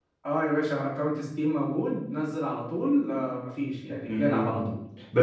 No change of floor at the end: No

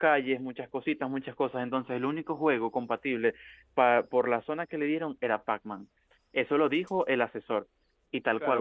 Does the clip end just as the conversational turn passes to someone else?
Yes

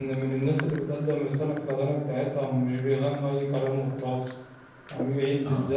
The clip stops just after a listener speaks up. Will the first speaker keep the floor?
Yes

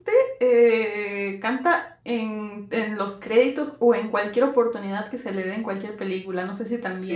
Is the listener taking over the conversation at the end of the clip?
Yes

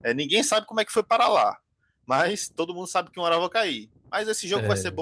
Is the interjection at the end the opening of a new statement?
No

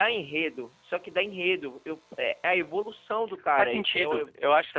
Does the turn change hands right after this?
Yes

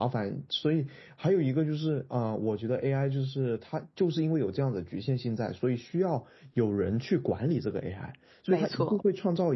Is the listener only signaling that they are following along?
Yes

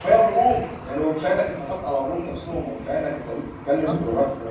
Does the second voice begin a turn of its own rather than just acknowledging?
No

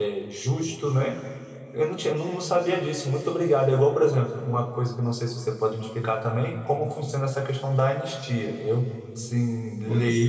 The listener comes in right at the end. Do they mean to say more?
Yes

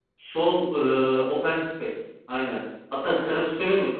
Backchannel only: Yes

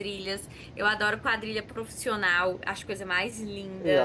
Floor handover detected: Yes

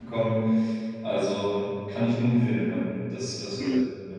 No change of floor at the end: No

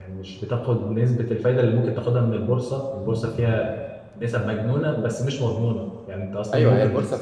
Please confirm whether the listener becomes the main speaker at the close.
Yes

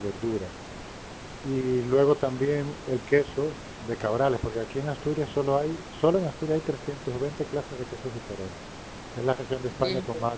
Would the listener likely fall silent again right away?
Yes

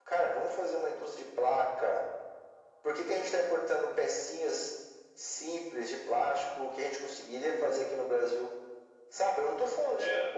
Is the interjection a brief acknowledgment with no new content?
Yes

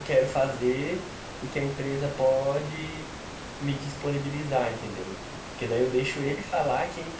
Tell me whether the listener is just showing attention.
Yes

